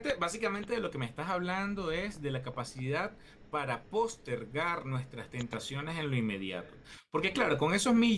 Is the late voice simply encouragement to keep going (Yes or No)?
Yes